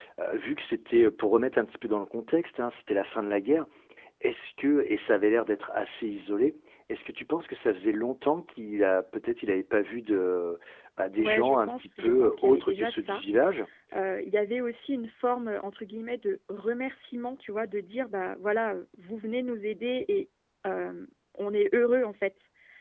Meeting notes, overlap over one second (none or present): present